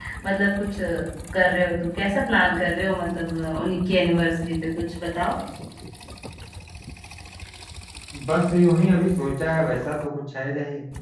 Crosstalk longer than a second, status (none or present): none